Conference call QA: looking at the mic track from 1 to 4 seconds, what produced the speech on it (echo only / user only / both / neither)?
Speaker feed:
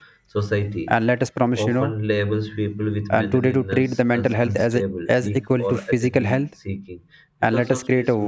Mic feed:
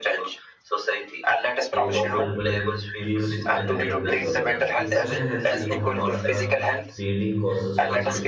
both